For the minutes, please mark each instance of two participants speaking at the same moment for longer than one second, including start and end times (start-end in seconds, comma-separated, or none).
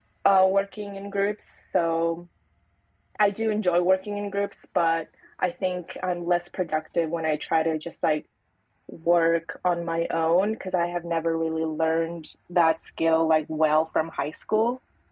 none